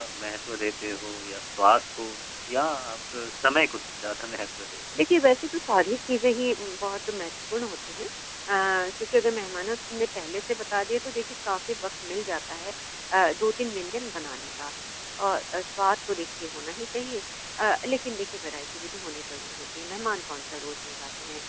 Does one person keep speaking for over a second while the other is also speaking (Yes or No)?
No